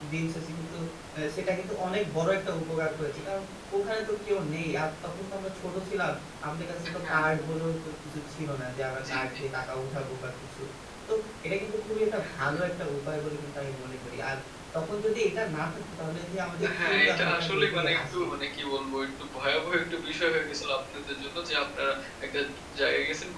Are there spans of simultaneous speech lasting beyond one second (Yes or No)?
Yes